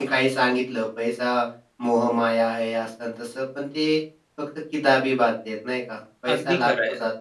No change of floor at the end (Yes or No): No